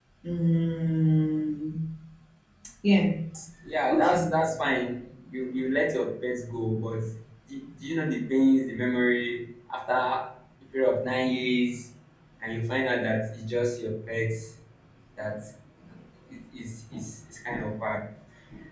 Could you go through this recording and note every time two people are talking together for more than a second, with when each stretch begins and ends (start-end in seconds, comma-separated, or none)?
none